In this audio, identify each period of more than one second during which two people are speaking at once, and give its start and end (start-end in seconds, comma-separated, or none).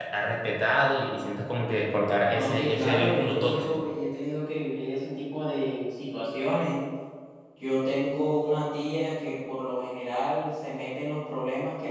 2.3-3.8